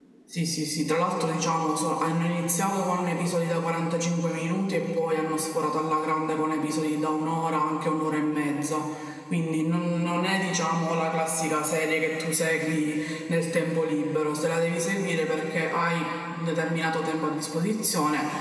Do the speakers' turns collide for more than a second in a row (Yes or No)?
No